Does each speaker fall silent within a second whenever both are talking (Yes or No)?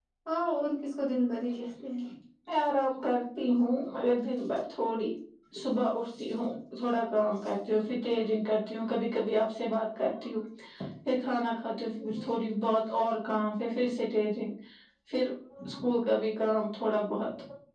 Yes